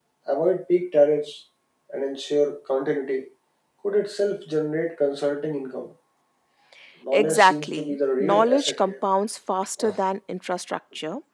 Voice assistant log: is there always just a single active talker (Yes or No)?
No